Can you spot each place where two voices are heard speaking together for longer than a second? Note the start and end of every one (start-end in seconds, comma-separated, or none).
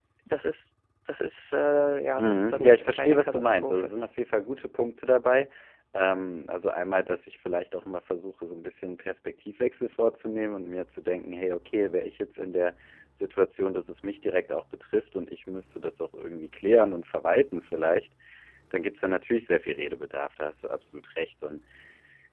2.2-3.9